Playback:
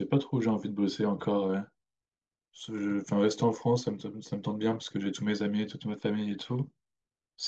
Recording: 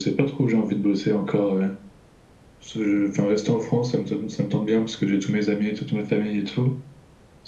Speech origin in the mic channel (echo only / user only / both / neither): echo only